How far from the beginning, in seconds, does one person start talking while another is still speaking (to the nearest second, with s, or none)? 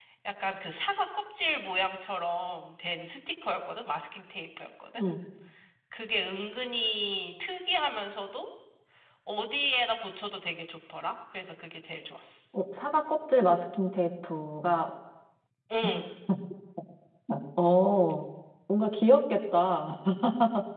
none